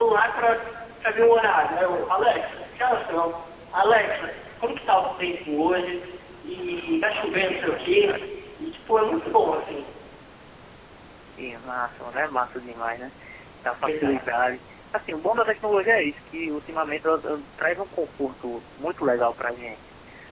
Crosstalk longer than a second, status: present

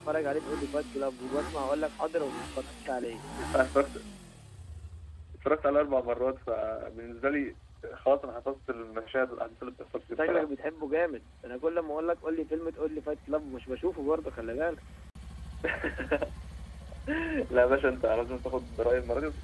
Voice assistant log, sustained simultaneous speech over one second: none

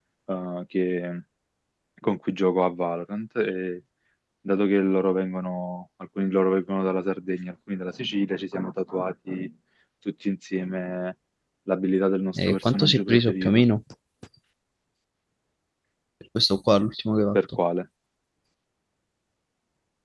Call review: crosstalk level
present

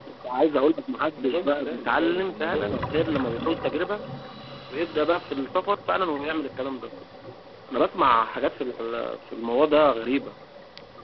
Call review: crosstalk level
present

